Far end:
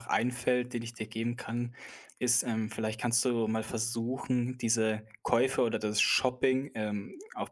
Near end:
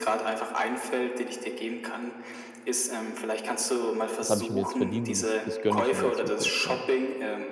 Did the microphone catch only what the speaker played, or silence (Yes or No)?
No